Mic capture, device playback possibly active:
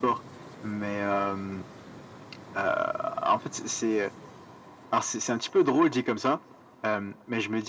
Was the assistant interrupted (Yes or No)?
No